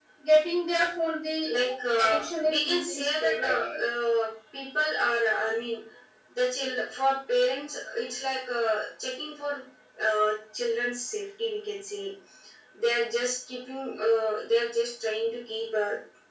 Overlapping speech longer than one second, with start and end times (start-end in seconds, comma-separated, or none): 2.0-3.8